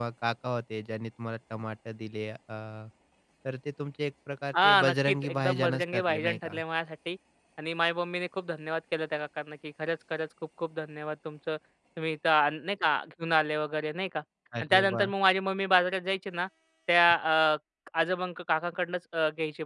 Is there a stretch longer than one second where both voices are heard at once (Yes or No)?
Yes